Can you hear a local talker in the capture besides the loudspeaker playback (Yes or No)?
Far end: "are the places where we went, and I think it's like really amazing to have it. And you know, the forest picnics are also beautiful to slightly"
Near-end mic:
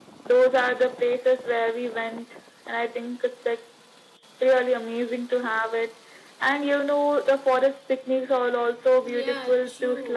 Yes